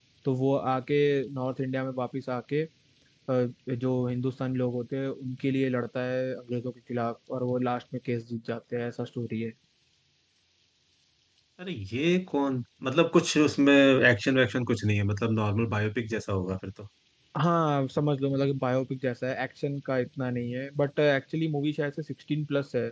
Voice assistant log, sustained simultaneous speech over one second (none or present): none